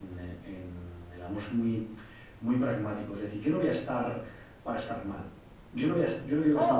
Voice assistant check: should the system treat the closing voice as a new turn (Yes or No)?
Yes